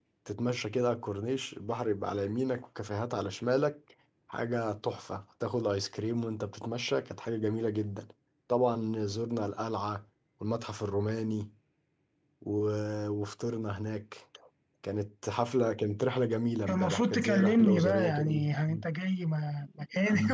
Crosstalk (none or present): present